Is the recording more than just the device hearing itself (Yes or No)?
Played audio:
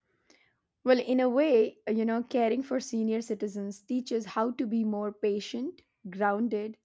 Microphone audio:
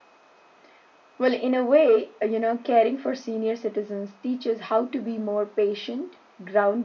No